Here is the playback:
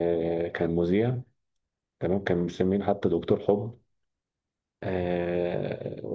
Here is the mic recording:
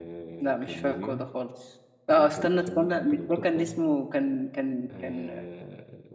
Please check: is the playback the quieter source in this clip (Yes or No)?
Yes